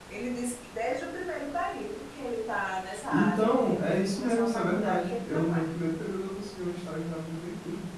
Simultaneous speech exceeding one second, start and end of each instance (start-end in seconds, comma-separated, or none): 3.1-5.7